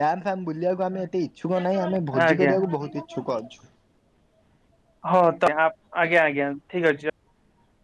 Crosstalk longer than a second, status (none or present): none